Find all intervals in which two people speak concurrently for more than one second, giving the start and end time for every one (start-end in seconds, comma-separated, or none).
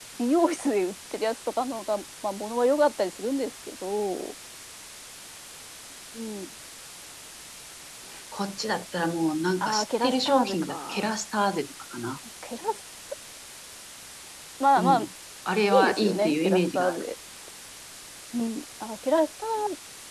9.6-11.0, 15.8-17.0